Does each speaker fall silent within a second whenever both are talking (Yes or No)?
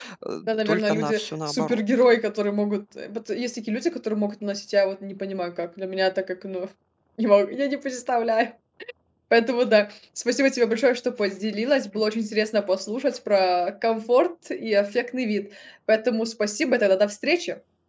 No